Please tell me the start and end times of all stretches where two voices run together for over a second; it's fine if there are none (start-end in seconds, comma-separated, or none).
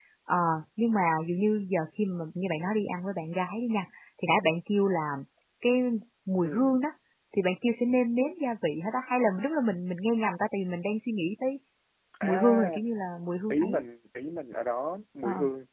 none